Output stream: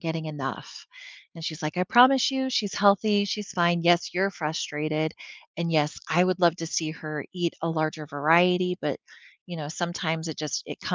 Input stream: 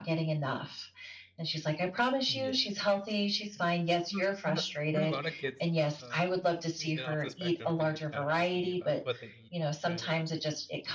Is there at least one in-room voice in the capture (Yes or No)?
Yes